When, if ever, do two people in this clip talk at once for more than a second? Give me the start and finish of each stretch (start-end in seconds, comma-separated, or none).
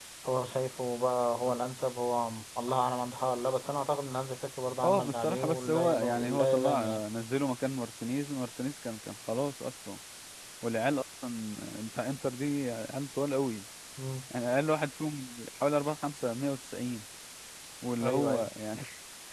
4.8-7.0